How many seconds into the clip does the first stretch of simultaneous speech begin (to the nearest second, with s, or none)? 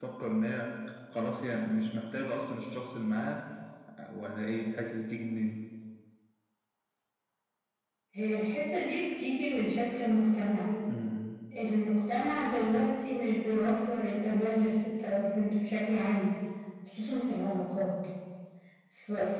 none